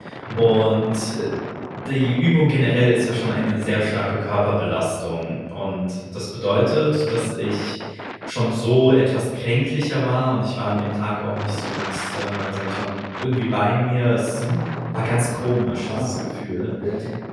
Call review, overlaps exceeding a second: none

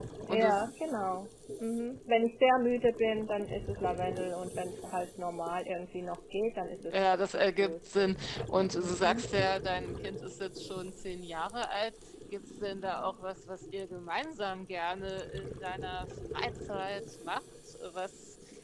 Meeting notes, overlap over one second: present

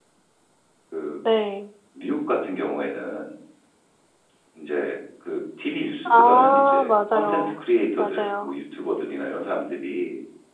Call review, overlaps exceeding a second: present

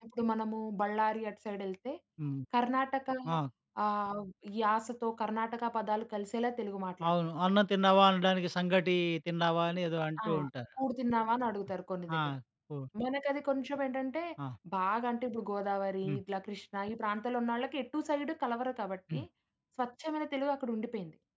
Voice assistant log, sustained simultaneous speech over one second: none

